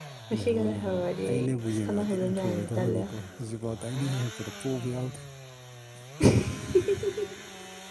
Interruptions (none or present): present